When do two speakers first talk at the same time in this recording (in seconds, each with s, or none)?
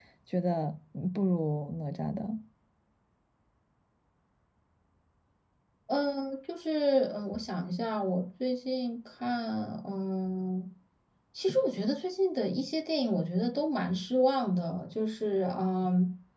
none